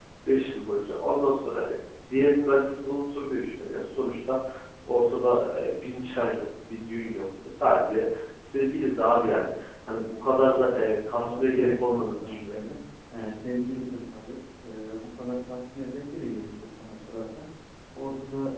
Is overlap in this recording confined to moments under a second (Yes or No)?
No